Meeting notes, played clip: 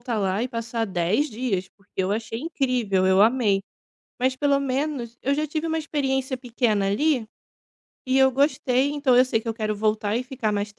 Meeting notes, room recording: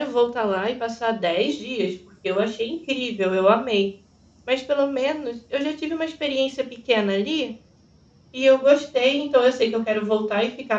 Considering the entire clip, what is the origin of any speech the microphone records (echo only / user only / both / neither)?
echo only